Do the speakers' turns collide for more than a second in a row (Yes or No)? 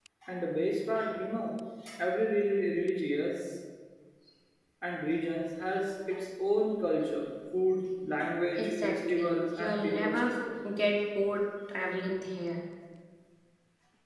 Yes